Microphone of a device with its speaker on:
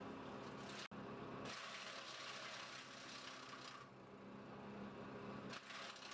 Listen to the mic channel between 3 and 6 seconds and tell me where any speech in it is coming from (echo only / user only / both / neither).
neither